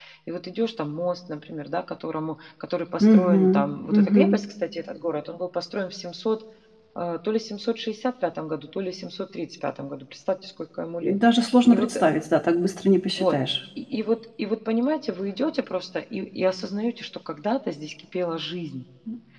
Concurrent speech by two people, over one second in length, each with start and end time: 3.0-4.2

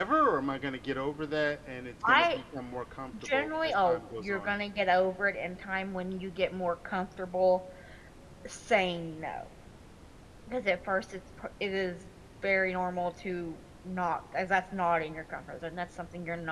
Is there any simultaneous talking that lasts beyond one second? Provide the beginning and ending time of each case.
3.2-4.5

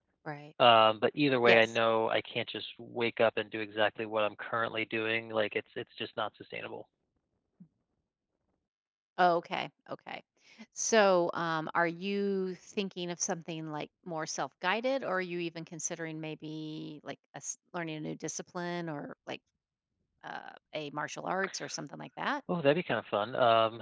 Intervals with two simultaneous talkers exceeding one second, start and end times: none

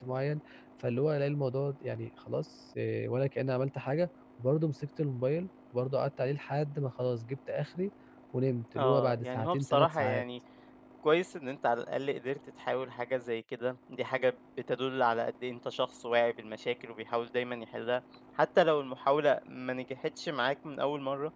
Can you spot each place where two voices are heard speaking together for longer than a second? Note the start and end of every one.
8.8-10.2

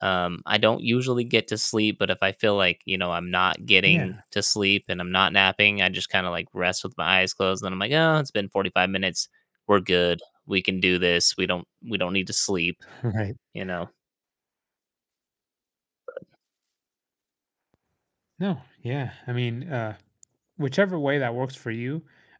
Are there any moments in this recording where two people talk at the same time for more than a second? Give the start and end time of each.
none

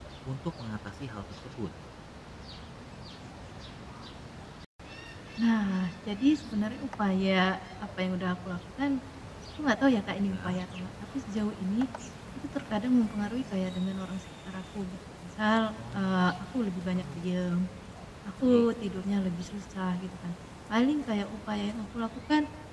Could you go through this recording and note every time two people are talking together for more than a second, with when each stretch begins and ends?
15.9-17.3

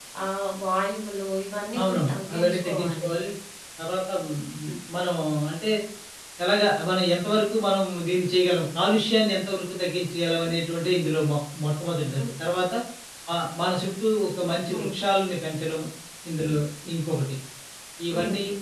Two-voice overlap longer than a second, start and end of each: 1.8-3.1

